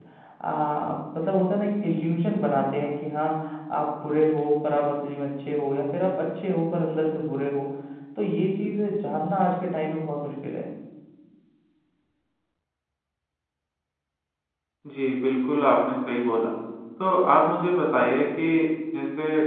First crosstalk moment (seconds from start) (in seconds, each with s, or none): none